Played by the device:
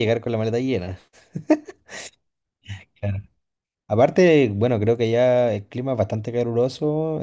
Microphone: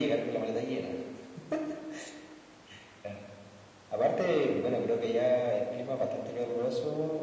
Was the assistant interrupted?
No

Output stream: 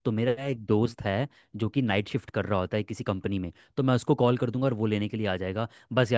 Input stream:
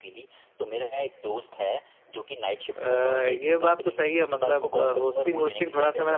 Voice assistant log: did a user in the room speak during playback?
Yes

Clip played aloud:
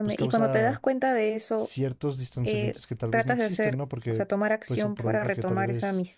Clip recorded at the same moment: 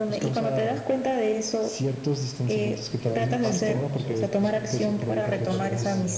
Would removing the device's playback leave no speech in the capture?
No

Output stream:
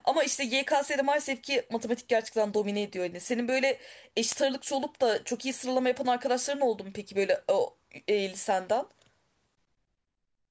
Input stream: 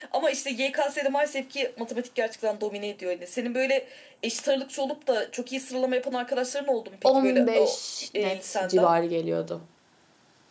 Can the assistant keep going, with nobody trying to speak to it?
No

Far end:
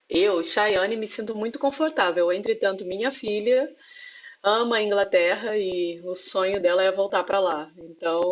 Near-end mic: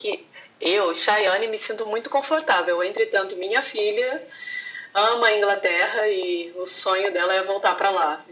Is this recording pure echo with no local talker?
Yes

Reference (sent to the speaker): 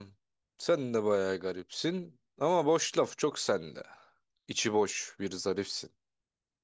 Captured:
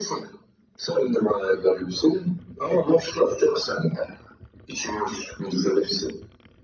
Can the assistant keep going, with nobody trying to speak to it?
Yes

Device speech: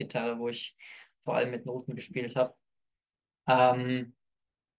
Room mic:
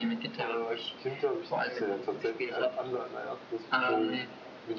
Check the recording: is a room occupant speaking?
Yes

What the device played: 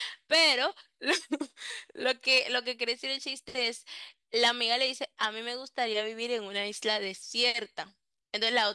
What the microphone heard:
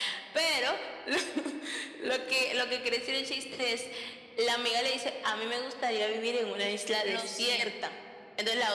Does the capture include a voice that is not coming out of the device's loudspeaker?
Yes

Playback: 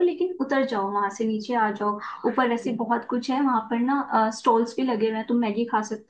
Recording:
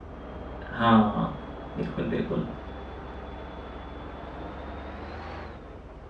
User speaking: Yes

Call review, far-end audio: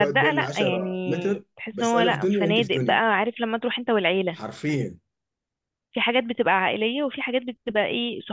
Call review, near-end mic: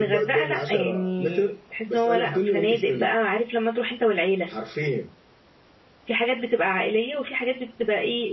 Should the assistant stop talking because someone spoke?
No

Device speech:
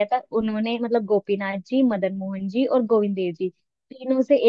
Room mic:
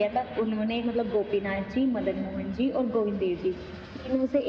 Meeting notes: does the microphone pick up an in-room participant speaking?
No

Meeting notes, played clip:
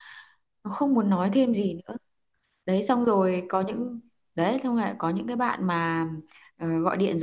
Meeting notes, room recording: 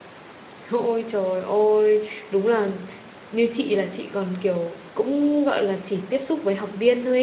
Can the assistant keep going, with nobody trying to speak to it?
No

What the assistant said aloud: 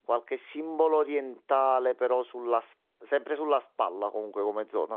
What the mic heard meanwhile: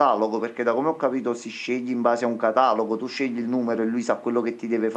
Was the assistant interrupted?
Yes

